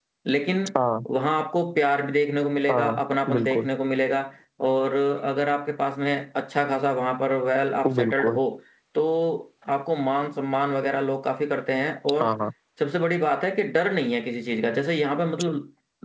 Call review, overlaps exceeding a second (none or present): none